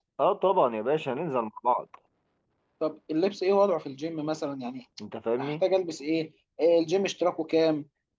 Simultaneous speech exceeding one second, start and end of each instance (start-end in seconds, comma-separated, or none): none